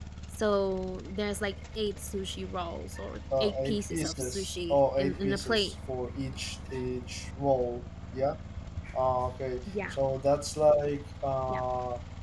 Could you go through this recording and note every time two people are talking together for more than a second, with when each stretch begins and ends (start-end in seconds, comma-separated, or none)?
3.4-5.7